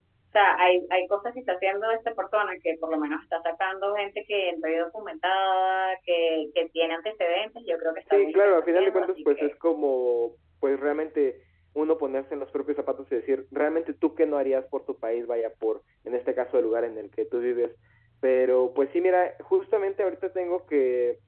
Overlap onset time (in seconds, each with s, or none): 8.1 s